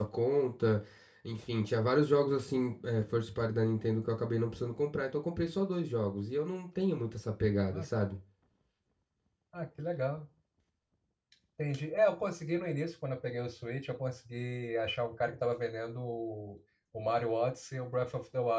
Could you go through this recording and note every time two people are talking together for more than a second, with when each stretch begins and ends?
none

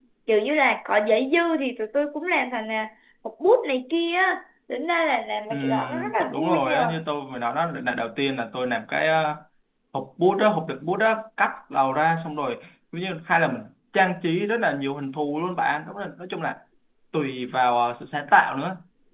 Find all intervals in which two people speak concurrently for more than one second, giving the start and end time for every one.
5.5-6.9

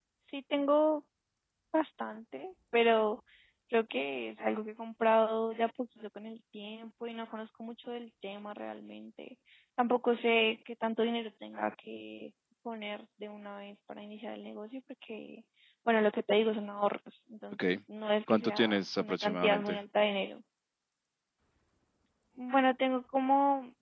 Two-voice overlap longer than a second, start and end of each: 18.3-19.8

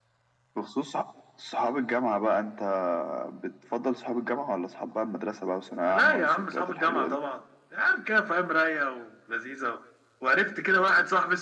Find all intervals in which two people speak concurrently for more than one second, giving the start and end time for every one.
5.9-7.2

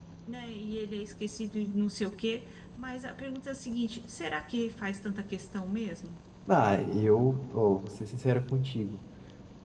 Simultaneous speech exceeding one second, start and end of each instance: none

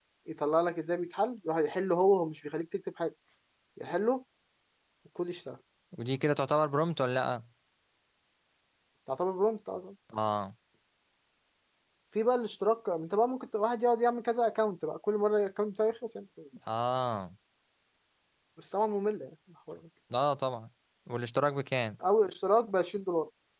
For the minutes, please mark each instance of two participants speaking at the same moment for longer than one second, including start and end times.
none

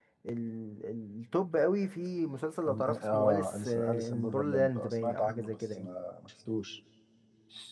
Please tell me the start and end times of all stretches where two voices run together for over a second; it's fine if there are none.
2.6-5.9

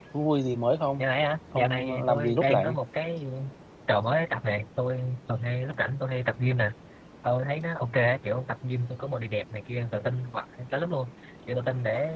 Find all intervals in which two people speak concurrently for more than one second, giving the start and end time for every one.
1.6-2.8

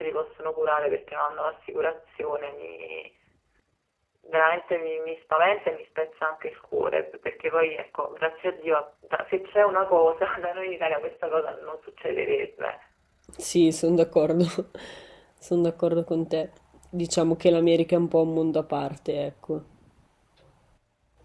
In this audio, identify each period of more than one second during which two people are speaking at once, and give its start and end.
none

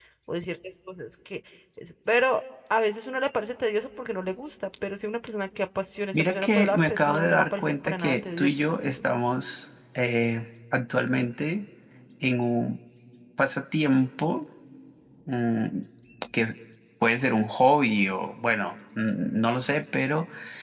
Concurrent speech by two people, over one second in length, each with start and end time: 6.1-9.1

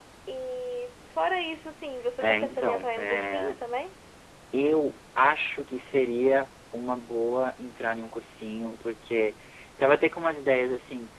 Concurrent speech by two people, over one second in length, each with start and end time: 2.2-3.6

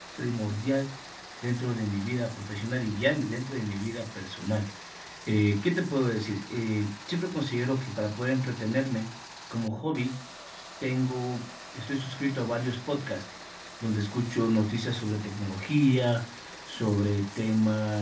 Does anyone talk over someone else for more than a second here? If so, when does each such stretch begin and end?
none

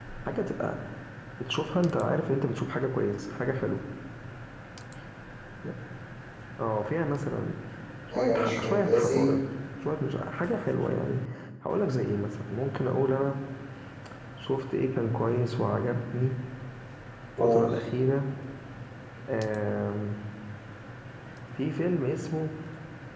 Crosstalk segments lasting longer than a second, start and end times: 8.1-9.3

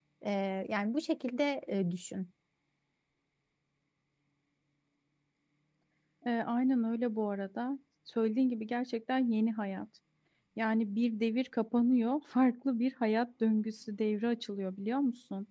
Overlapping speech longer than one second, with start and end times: none

